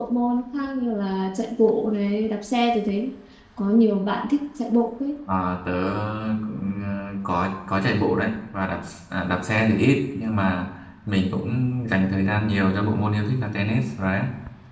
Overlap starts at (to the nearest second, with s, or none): none